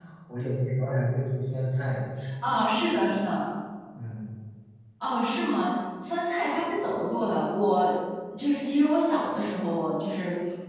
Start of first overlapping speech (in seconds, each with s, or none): none